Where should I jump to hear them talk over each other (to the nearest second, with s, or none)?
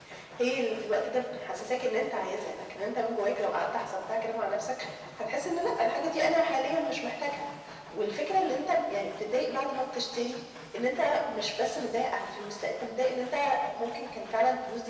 none